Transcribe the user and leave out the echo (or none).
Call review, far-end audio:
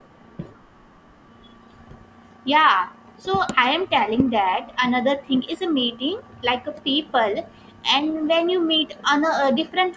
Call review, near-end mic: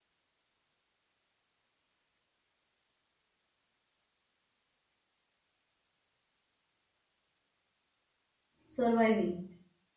surviving.